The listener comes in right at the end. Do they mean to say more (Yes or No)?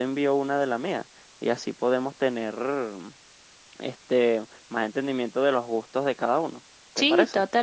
Yes